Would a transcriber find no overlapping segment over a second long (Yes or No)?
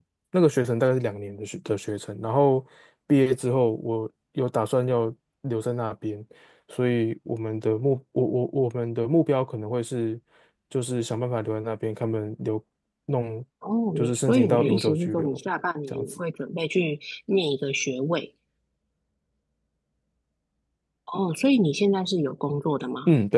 No